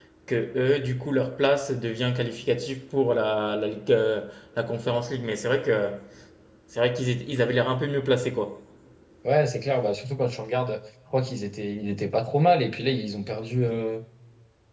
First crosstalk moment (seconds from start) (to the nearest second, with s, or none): none